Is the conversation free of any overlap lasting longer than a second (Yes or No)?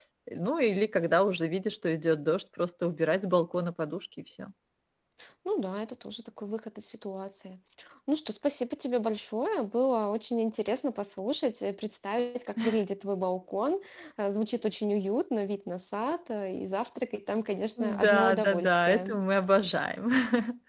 No